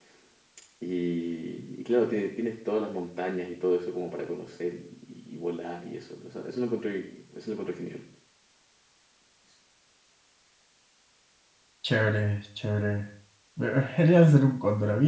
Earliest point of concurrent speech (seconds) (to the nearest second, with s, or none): none